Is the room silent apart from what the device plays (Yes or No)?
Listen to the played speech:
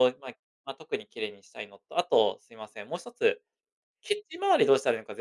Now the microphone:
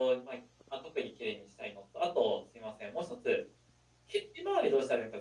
Yes